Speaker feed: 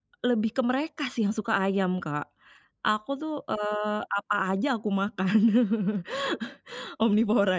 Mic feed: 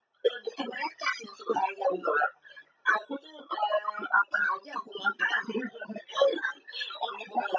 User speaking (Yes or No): No